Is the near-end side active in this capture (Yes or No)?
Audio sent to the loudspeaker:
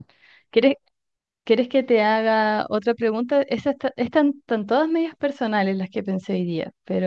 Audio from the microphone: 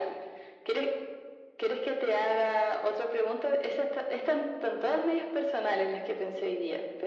No